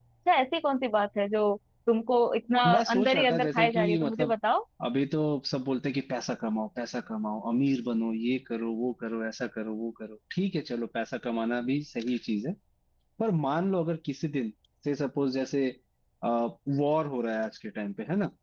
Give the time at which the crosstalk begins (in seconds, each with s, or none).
2.6 s